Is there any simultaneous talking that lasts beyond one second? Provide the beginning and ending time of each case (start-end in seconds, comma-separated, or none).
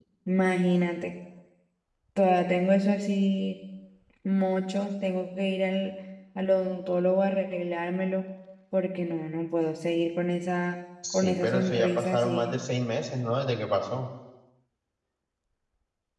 11.1-12.5